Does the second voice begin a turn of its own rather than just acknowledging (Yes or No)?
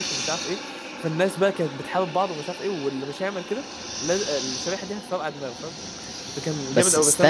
Yes